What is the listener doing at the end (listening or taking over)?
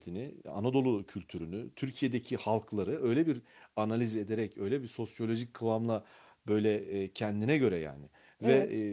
listening